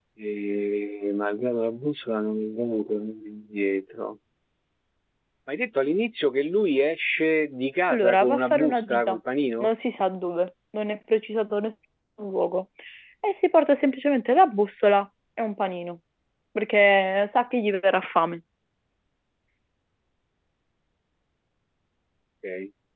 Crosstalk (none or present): present